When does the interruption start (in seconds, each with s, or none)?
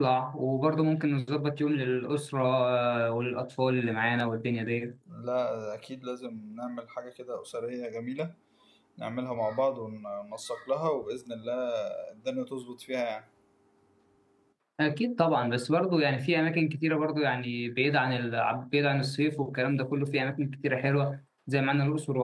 none